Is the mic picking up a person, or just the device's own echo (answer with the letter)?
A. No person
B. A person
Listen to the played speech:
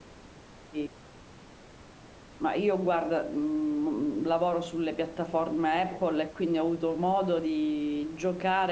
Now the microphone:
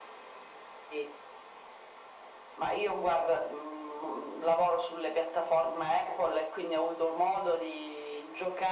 A